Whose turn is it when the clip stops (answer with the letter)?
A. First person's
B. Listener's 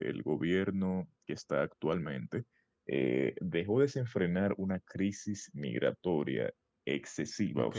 A